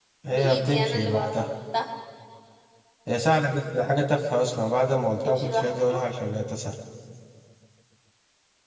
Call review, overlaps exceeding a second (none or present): present